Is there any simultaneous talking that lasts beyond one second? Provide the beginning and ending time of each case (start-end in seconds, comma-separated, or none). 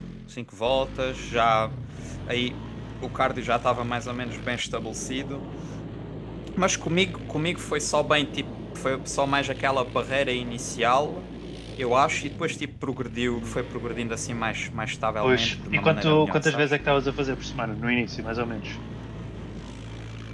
15.2-16.8